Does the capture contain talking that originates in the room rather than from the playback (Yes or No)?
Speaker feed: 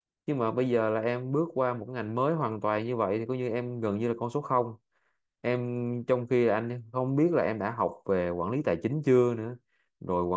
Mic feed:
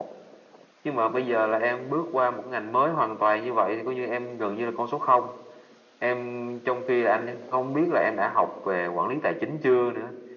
No